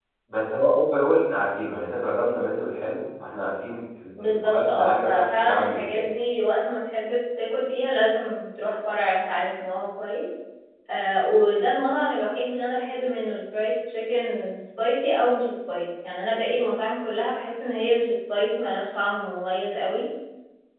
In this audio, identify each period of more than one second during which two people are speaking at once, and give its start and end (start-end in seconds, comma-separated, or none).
4.2-6.1